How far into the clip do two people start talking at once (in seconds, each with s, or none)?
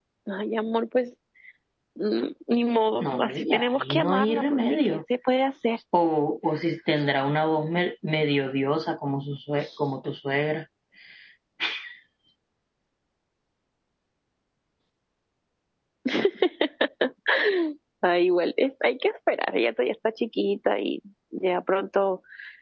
3.0 s